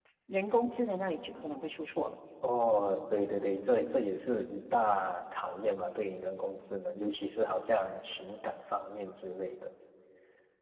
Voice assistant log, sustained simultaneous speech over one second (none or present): none